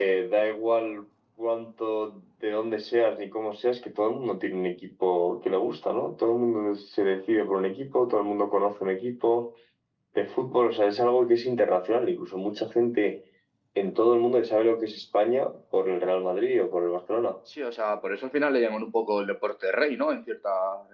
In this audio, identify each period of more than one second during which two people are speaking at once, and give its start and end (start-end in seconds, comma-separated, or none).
none